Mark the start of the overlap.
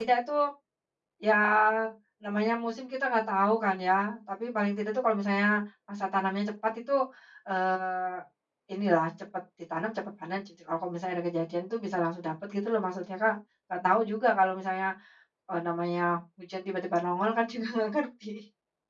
none

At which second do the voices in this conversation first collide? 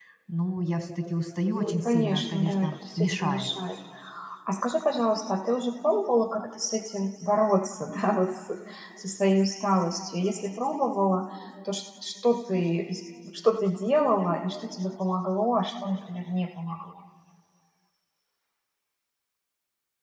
2 s

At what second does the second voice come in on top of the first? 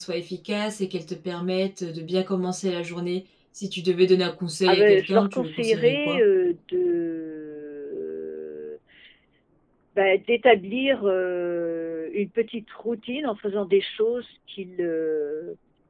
5 s

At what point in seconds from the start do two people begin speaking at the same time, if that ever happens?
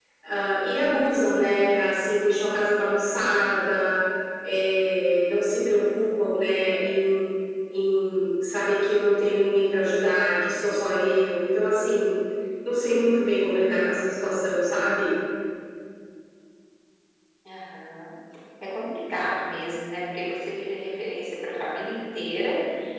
none

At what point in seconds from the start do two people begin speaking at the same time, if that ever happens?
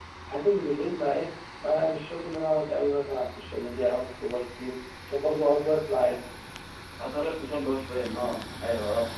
none

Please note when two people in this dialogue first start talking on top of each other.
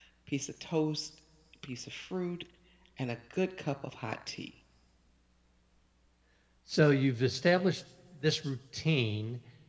none

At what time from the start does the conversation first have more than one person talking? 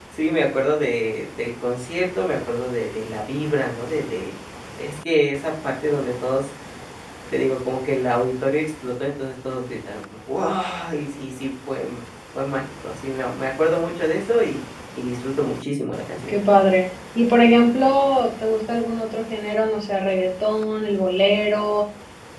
none

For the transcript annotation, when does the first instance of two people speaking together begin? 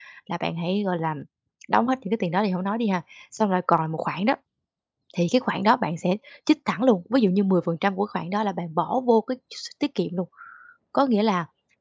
none

